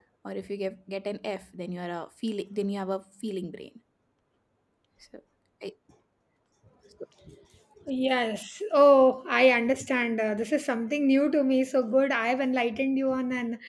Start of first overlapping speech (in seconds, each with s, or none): none